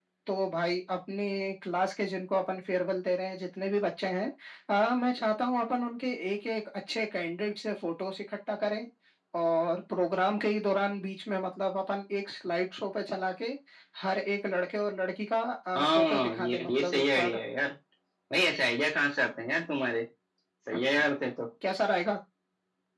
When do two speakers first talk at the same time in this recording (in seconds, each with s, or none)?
15.8 s